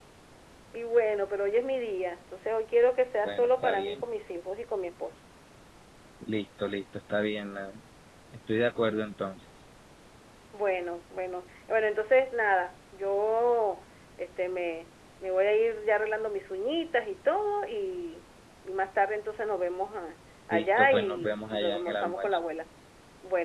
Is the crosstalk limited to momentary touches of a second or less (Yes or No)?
No